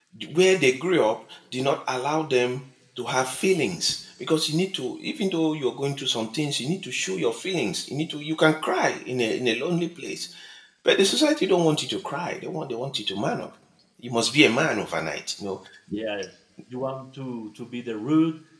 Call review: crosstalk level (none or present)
none